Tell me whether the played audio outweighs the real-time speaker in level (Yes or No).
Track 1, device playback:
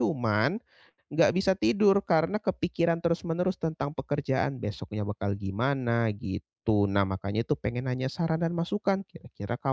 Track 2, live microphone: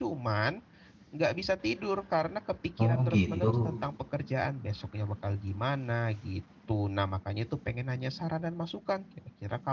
No